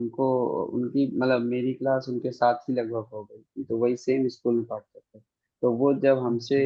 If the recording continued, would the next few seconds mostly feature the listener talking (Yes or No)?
No